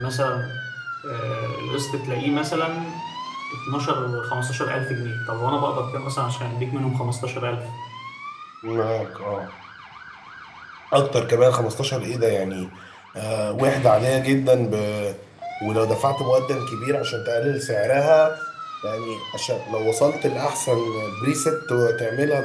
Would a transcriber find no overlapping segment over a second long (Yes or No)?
Yes